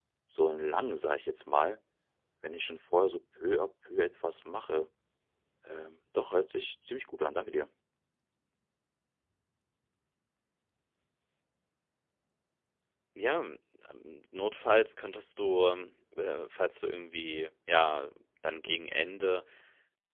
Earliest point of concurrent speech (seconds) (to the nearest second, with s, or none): none